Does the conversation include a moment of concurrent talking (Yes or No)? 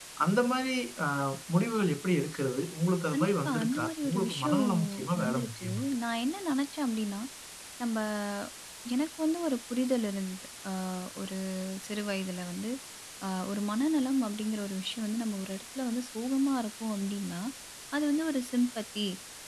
Yes